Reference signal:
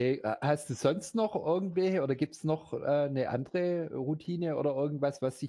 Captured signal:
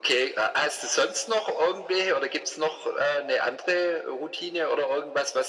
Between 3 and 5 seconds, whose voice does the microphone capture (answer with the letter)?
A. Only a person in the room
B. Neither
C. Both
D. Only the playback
D